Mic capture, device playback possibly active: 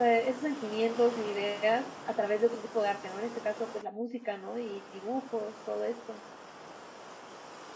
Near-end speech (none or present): present